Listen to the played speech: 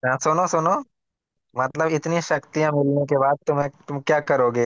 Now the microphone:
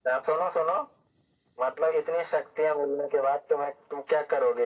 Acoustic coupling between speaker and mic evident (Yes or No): Yes